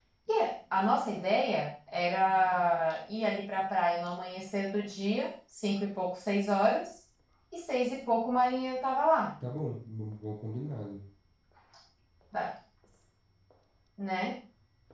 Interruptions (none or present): none